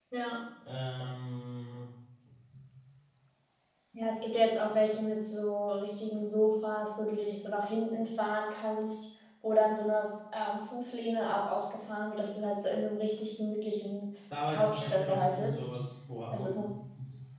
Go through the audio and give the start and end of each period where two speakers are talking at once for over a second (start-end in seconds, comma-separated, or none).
14.5-15.8